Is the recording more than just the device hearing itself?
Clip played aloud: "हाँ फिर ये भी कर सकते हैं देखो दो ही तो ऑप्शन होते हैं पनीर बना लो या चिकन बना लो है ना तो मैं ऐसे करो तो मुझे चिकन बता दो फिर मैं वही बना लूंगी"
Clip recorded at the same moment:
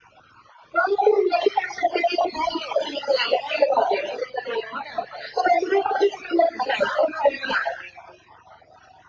No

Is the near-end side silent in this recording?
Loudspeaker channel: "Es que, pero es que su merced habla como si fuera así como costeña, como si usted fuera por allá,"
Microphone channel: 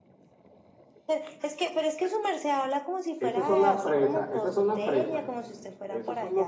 No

